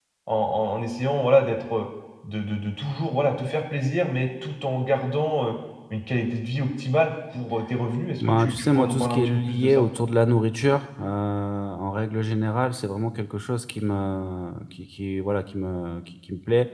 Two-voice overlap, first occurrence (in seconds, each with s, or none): 8.2 s